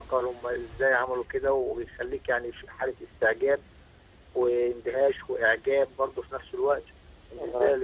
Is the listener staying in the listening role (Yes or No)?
Yes